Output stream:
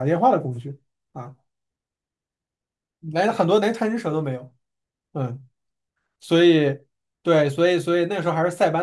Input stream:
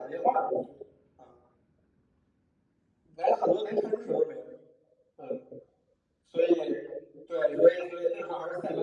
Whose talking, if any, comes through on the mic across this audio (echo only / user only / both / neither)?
echo only